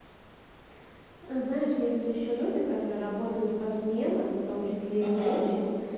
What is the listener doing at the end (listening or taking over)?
listening